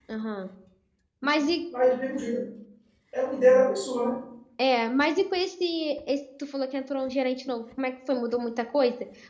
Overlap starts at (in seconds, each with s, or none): none